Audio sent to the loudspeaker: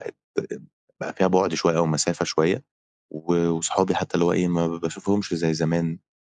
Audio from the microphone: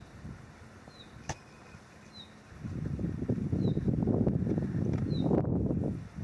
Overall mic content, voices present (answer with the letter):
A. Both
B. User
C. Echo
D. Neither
D